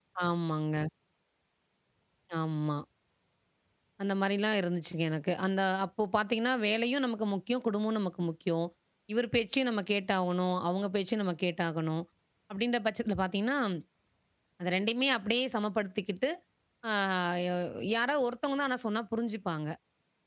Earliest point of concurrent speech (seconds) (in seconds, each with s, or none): none